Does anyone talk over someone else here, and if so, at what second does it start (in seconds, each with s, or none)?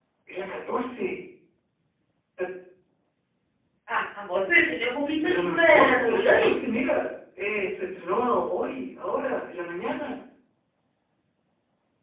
5.2 s